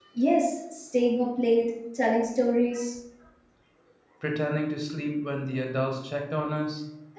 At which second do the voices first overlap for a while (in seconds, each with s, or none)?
none